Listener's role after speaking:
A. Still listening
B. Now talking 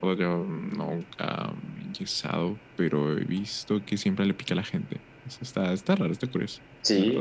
B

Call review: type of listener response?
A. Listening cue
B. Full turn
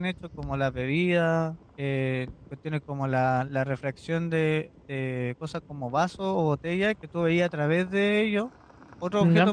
A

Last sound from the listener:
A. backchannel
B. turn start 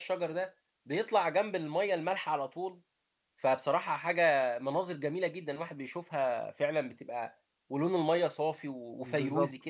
B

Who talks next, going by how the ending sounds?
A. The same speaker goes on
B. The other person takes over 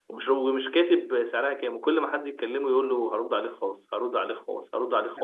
B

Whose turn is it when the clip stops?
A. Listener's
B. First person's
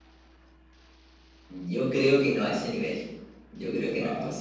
B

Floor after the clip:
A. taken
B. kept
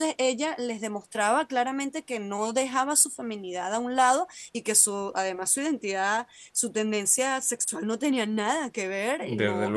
B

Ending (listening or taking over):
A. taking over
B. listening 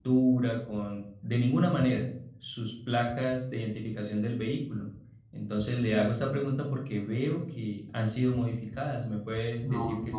A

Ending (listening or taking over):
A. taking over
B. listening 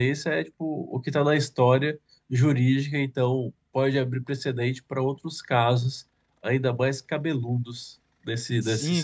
A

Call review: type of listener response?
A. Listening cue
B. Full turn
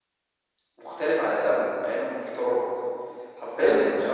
A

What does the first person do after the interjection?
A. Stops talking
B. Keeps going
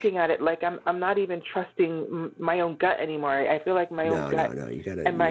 A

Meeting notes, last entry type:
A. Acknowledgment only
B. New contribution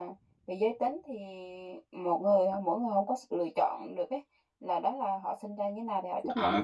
B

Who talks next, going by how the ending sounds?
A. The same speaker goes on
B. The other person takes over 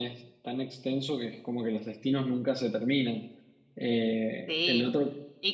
B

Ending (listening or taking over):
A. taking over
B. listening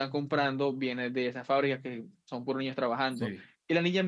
B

